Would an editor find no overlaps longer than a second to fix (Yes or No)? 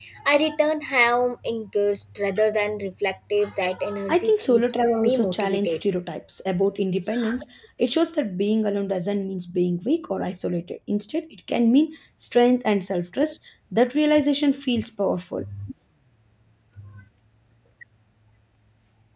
No